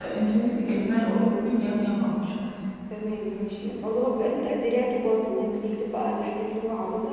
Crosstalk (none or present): none